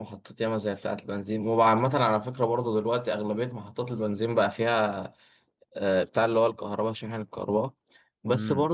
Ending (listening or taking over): listening